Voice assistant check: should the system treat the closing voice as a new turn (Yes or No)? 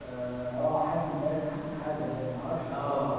Yes